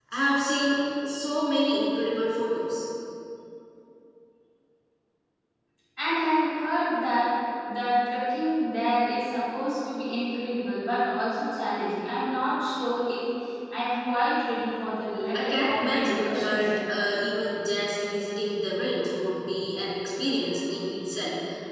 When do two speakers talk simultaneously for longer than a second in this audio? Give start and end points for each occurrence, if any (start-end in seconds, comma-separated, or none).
15.3-16.8